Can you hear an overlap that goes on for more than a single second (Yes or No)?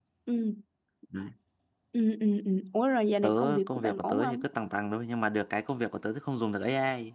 Yes